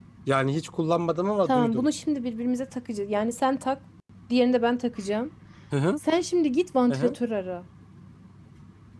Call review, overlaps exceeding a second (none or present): none